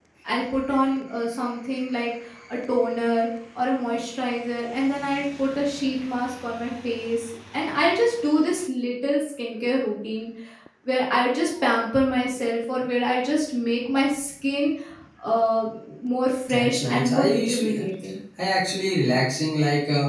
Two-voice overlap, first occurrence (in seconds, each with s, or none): 16.6 s